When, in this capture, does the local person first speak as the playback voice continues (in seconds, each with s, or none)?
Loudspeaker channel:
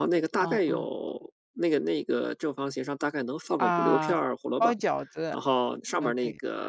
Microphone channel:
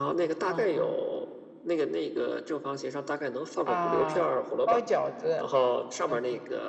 none